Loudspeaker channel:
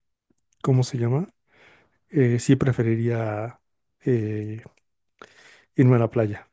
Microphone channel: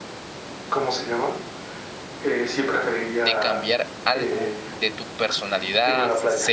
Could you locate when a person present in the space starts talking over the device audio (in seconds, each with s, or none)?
3.2 s